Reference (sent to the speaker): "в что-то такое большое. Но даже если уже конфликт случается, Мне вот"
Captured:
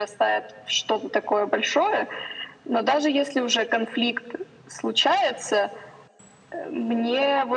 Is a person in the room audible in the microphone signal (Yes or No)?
No